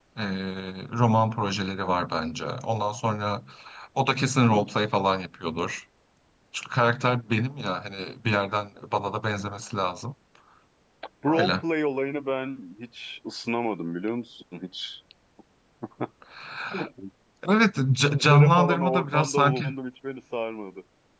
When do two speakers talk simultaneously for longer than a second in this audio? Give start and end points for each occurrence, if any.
18.3-19.6

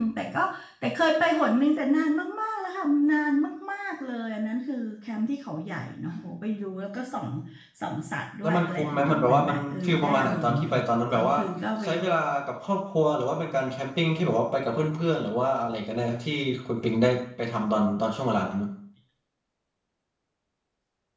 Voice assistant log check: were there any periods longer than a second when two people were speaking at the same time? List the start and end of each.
8.4-10.7

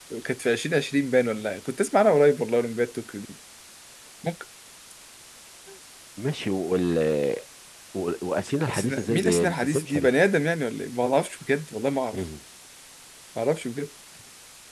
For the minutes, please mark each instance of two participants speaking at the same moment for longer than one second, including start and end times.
8.7-10.1

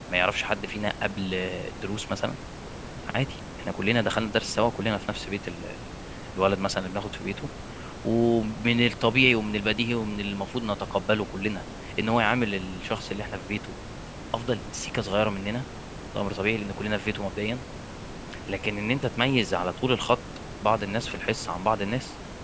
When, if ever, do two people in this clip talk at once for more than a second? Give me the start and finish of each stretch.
none

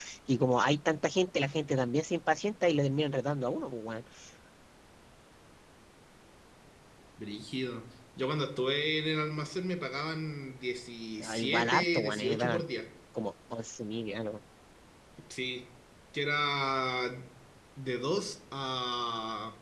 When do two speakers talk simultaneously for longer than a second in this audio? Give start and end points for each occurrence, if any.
11.2-12.6

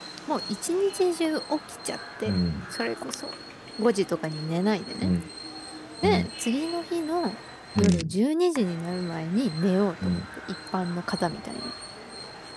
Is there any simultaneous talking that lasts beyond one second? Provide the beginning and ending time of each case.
none

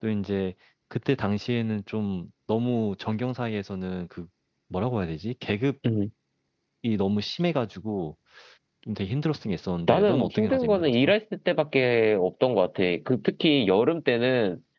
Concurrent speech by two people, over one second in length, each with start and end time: 9.9-11.1

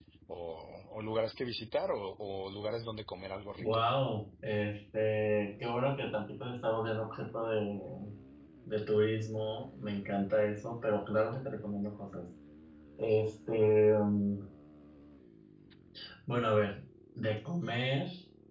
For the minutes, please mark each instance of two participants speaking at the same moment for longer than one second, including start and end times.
none

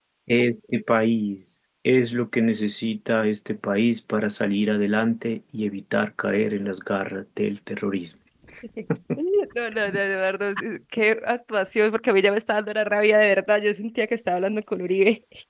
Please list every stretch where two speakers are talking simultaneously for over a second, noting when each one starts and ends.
none

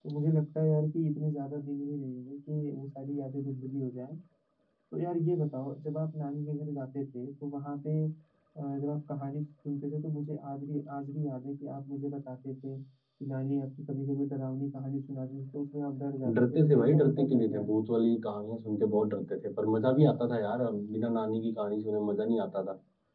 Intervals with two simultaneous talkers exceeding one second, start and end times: 16.4-17.7

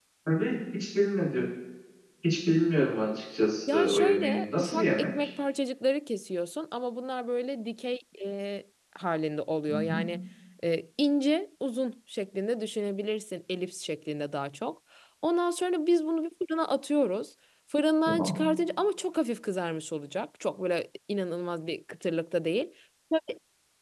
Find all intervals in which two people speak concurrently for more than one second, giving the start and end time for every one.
3.7-5.3

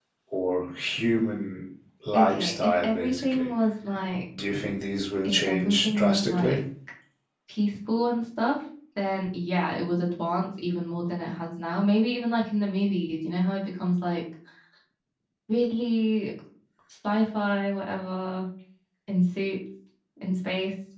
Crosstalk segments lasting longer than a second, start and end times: 2.1-3.5, 5.2-6.6

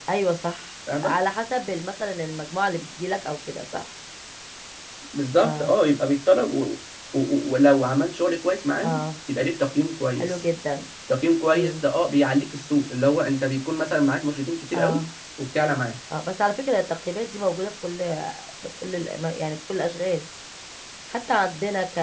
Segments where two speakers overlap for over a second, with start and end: none

